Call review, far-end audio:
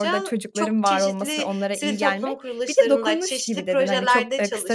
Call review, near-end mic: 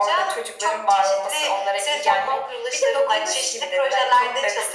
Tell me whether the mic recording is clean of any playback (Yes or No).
No